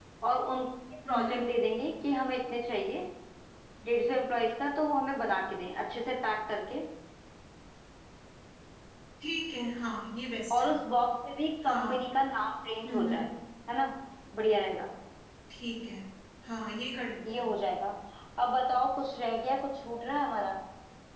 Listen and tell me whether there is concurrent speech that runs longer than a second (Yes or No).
No